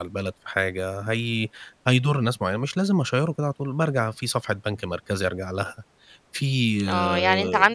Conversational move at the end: taking over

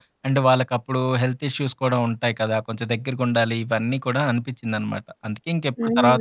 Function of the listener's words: taking over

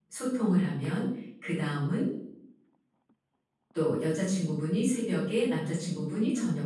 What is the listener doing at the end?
listening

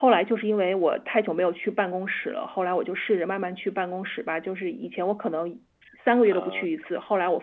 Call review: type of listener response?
listening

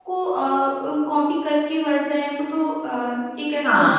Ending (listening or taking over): taking over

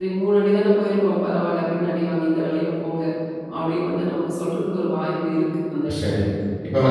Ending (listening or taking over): taking over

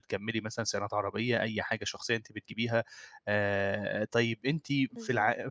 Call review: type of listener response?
listening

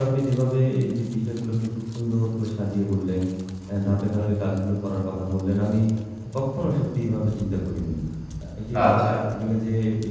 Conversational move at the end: listening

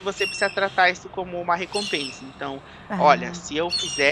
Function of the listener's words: listening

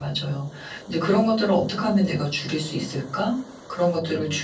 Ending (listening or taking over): listening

